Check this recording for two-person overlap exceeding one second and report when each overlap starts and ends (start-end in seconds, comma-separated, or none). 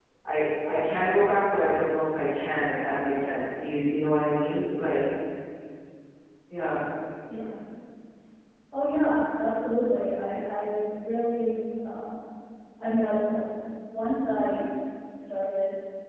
none